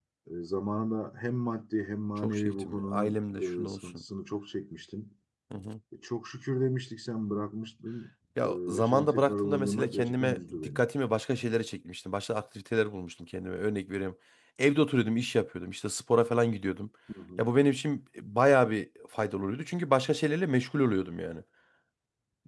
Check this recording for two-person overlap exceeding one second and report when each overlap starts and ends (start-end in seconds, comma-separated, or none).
2.2-4.0, 8.4-10.8